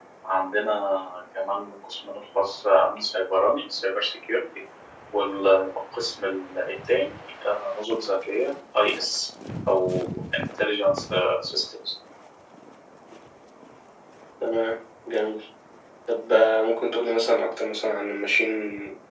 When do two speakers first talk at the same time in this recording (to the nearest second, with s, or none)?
none